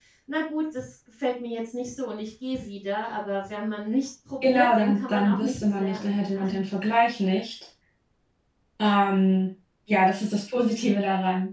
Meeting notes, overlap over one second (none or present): present